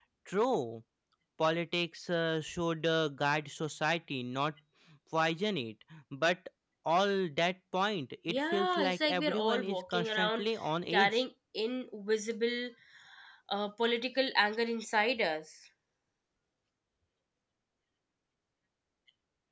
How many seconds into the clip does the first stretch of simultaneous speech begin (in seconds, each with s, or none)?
8.3 s